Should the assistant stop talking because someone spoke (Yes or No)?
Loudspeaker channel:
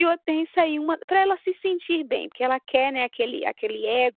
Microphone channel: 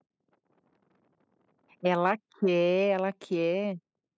Yes